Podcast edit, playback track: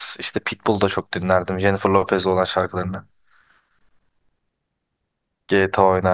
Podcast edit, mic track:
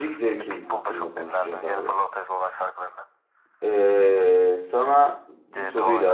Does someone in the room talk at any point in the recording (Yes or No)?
Yes